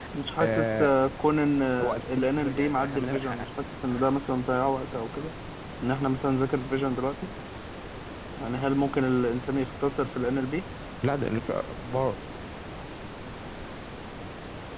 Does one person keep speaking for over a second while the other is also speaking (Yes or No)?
Yes